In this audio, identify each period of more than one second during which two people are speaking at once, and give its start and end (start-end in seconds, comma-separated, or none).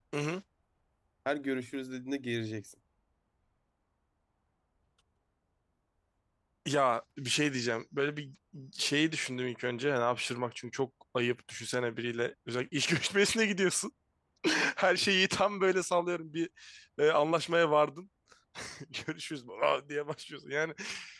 none